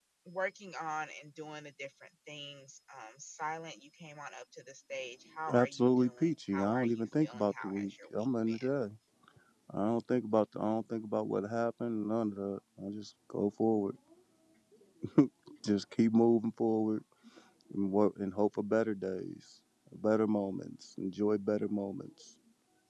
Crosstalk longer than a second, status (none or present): present